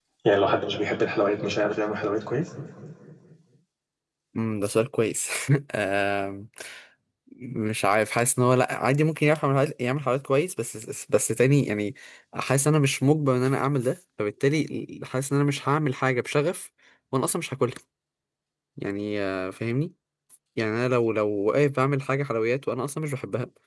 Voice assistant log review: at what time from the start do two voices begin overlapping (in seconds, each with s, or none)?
none